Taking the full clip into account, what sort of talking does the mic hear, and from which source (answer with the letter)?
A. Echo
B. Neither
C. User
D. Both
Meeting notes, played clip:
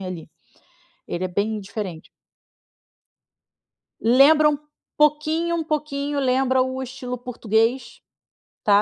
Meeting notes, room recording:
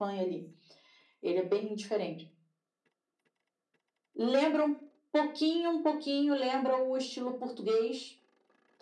A